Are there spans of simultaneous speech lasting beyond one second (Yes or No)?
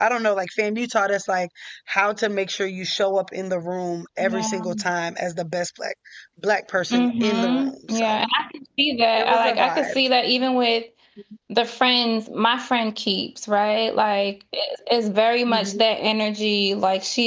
Yes